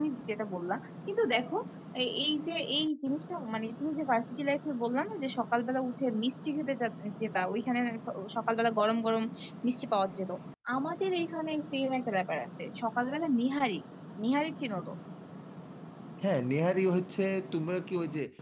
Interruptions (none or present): none